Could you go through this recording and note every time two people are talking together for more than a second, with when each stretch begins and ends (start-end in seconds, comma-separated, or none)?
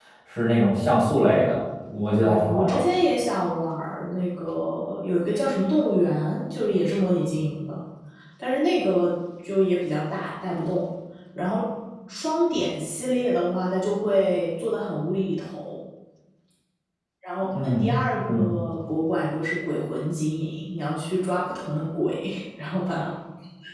none